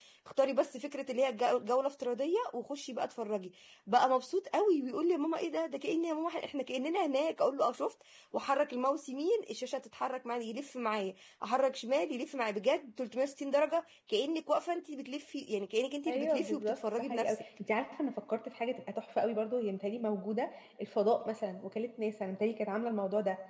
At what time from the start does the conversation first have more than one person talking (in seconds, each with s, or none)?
16.1 s